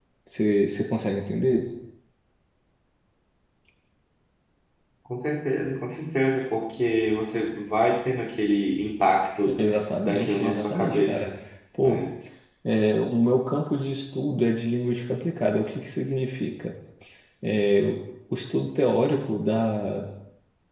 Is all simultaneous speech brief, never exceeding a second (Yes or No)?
No